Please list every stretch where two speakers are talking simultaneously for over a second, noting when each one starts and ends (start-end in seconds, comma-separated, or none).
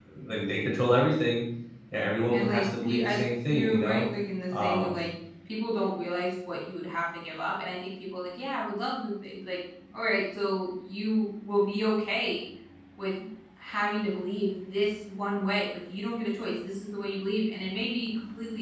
2.3-4.0